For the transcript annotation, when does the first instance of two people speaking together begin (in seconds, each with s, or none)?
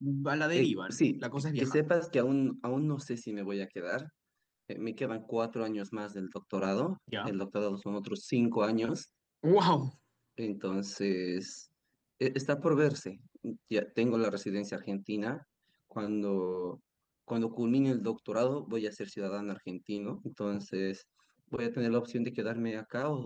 0.6 s